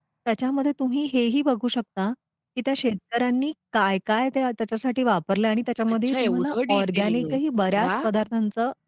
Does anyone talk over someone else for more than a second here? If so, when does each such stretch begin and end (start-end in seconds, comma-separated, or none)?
5.9-7.4